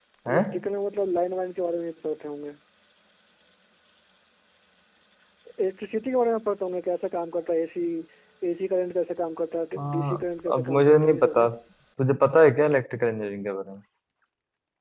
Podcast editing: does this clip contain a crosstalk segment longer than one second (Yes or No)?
Yes